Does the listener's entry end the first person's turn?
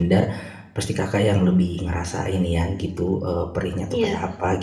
No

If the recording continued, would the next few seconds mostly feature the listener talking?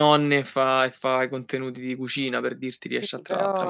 Yes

